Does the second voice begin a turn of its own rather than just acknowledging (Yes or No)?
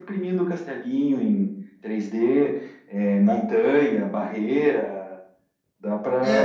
Yes